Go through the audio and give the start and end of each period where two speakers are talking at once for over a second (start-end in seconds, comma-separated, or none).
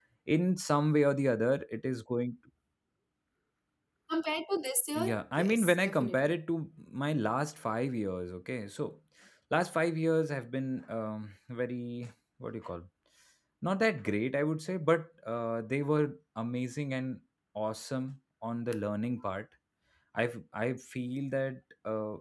5.0-6.3